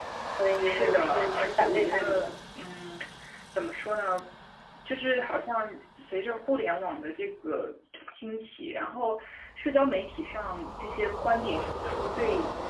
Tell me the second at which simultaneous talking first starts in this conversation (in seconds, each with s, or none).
0.6 s